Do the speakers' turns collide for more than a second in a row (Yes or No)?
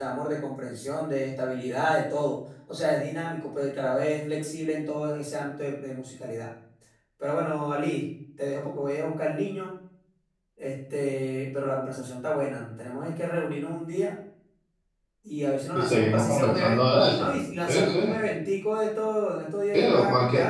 Yes